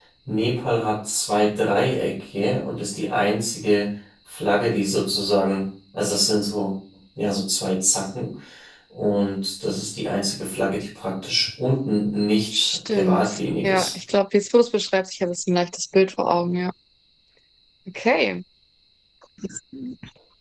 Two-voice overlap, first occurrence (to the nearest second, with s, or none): 13 s